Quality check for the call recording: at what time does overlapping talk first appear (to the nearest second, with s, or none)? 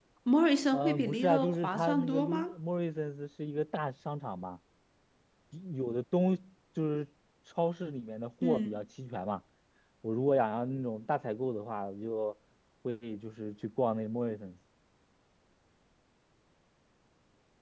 1 s